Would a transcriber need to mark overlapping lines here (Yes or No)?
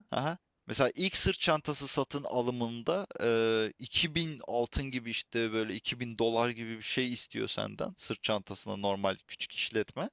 No